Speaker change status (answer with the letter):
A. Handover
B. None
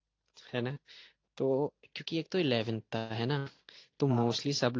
B